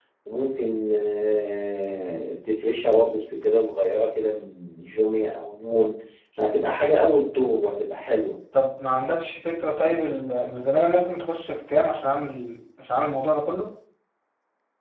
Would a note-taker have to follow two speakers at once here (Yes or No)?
No